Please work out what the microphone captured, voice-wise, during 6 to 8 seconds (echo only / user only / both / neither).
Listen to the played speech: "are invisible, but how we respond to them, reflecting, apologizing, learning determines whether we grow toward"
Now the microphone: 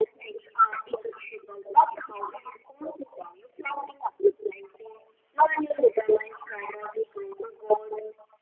echo only